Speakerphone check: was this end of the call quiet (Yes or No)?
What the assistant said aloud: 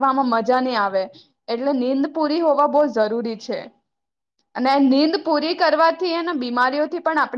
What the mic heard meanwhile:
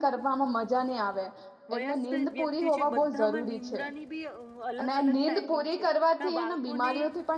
No